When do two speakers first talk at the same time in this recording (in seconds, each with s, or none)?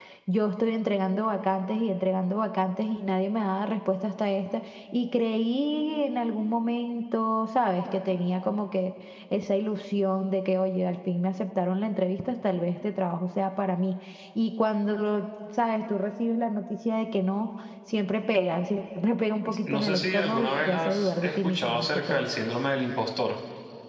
19.4 s